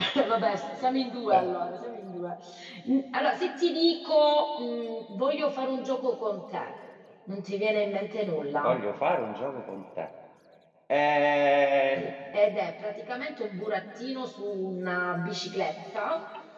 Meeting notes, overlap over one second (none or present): none